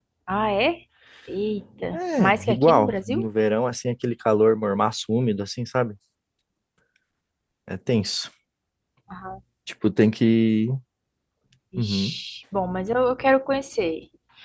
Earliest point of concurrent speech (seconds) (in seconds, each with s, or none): 1.9 s